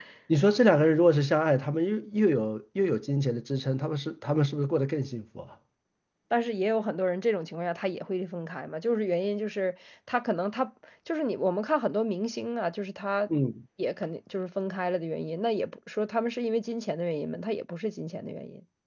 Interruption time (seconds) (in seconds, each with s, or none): none